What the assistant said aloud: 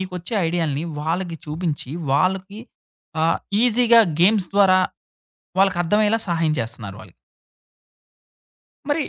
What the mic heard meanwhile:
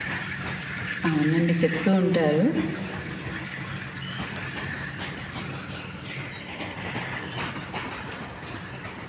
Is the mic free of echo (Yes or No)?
Yes